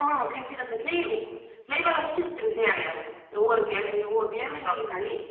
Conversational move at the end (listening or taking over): listening